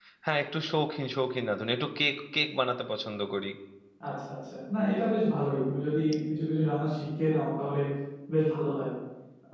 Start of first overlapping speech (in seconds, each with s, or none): none